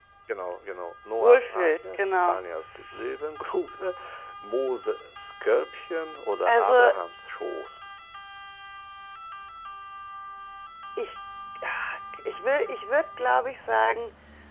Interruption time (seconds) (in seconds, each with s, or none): 1.1 s